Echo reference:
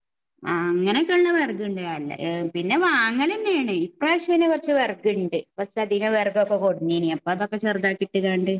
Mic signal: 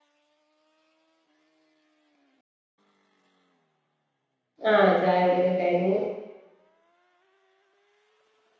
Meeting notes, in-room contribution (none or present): present